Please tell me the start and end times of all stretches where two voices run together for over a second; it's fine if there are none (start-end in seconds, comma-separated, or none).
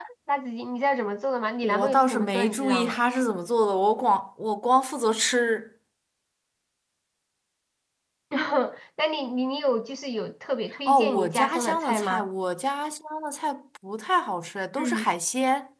1.6-3.0, 10.9-12.3